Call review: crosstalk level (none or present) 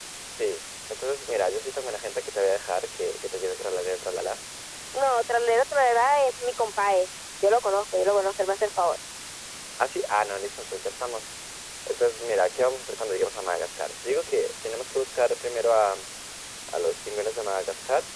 none